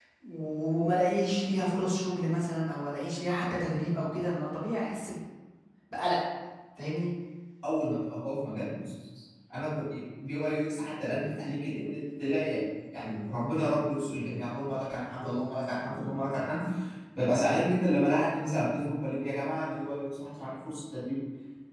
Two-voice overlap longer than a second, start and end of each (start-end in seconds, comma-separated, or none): none